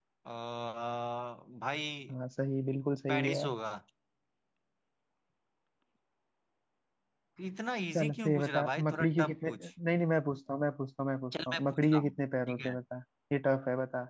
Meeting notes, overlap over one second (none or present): present